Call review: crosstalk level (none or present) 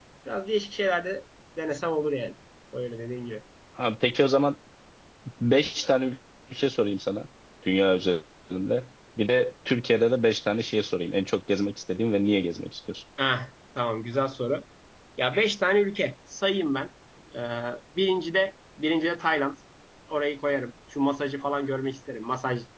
none